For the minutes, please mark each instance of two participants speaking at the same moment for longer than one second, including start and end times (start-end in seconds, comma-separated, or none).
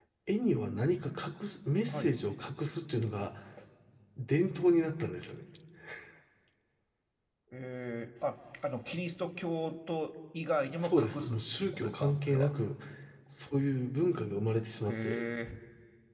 10.8-12.5